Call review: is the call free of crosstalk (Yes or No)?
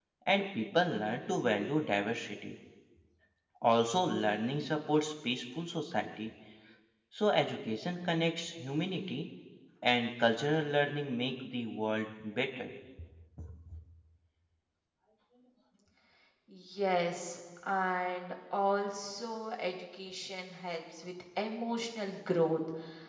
Yes